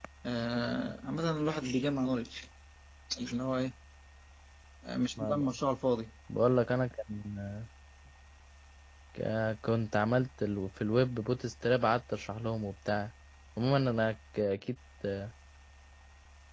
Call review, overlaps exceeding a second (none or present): none